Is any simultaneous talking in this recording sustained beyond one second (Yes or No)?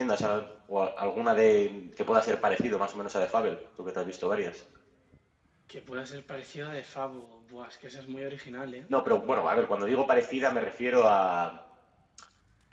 No